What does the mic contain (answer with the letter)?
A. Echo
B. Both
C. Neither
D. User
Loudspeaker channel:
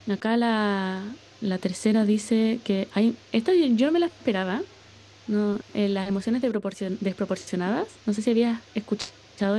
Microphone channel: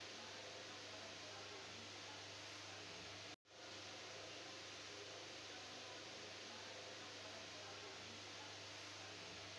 C